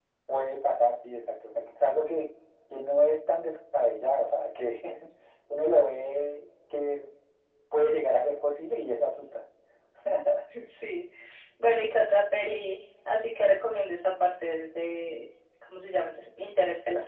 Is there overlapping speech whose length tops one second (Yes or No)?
No